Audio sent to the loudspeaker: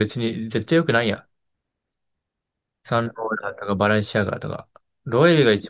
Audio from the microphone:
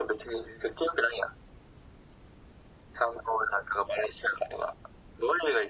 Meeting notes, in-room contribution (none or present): none